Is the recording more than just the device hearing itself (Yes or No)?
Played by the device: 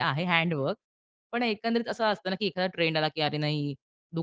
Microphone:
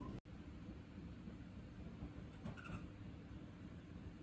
No